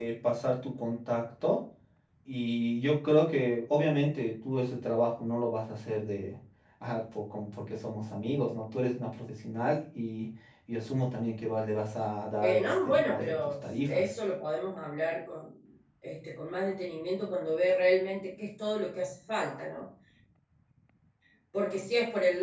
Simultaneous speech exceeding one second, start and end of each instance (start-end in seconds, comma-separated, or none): 12.4-14.0